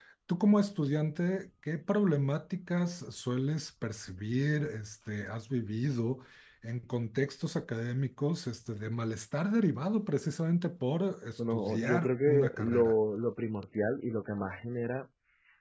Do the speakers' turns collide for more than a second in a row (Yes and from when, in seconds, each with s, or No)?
Yes, from 11.4 s